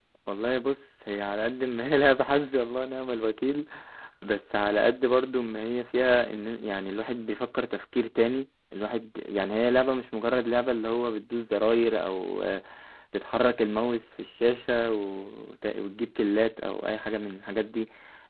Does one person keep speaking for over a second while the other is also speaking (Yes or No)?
No